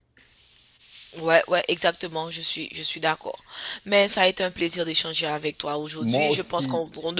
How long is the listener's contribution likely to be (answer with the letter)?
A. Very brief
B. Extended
A